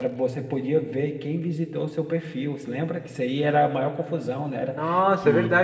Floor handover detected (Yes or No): Yes